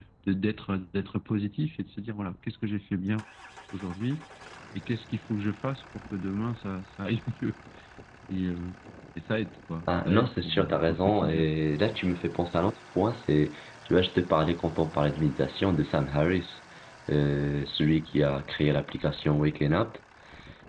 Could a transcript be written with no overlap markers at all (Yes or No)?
No